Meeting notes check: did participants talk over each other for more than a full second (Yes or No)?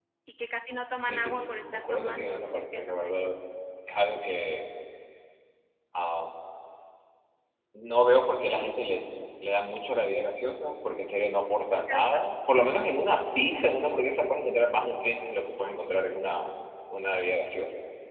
Yes